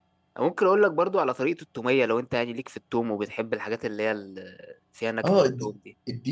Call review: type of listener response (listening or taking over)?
taking over